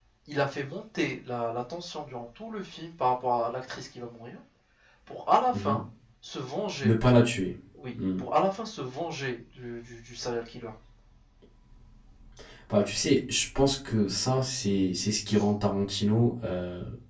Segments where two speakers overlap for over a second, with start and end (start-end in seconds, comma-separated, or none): none